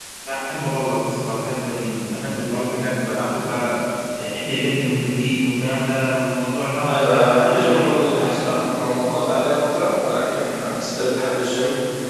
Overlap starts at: 6.9 s

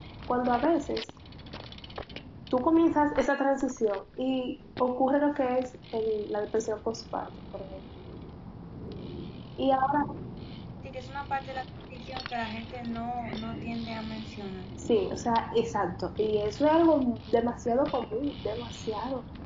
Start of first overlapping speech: none

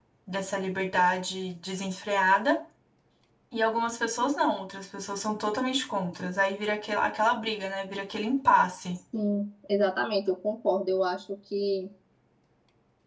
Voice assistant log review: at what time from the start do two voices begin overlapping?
none

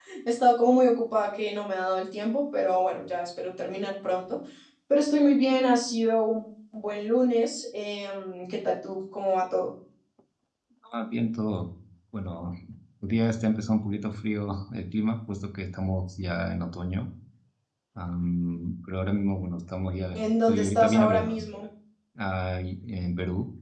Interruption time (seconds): 20.1 s

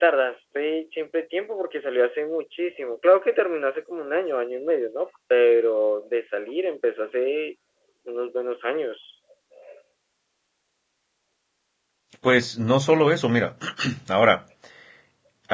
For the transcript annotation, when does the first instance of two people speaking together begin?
none

